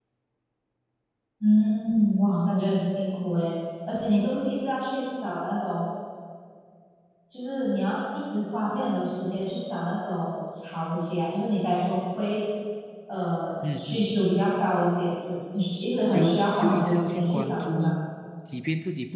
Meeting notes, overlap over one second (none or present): present